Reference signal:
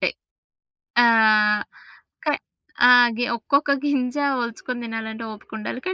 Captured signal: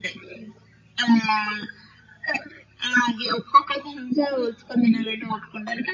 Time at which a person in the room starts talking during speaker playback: none

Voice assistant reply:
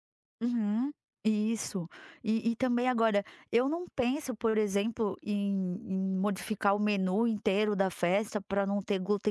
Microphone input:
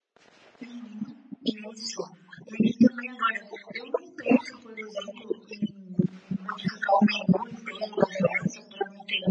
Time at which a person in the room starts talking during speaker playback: none

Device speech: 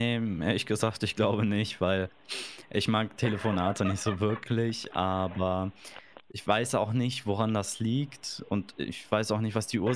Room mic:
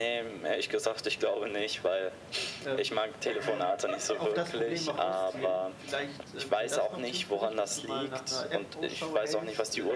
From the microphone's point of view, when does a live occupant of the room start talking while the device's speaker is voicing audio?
2.6 s

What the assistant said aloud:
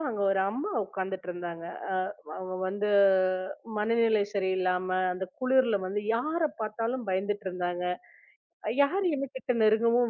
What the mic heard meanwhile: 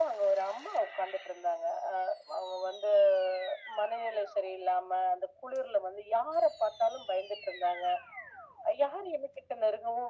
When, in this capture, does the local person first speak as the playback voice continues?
none

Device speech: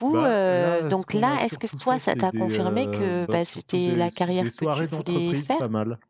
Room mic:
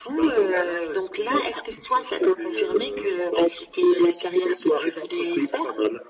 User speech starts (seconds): none

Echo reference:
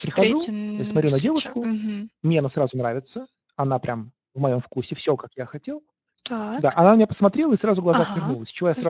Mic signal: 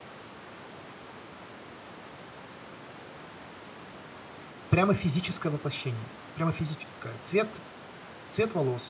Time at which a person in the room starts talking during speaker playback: 4.7 s

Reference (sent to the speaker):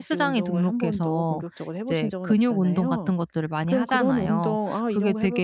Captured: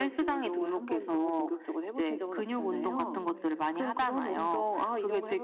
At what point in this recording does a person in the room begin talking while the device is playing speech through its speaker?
2.5 s

